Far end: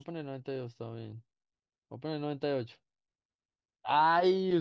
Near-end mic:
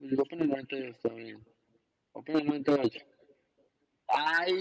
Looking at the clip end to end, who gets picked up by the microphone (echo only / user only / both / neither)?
echo only